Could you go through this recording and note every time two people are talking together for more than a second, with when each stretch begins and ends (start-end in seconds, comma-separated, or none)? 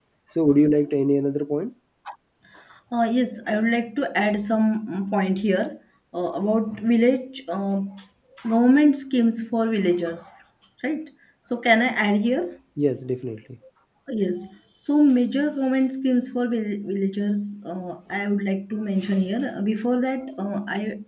none